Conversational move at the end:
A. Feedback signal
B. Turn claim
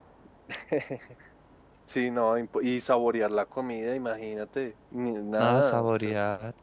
B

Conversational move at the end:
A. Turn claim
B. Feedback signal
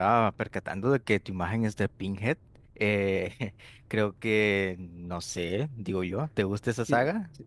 A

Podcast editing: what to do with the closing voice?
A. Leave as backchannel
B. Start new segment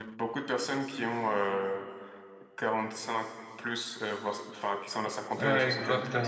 B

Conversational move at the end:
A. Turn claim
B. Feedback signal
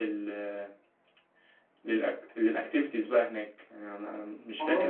B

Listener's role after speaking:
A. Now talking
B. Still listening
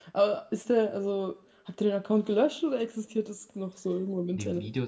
A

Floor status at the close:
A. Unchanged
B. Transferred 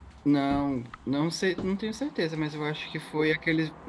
A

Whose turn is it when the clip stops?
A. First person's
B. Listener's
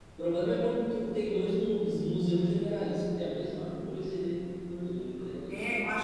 B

